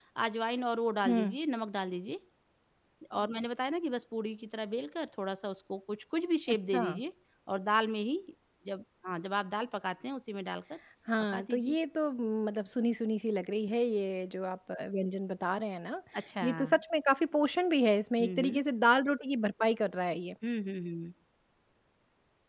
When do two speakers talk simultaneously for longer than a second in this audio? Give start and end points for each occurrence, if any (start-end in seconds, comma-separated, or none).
none